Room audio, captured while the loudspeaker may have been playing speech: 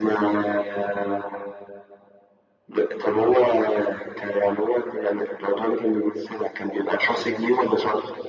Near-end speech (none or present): present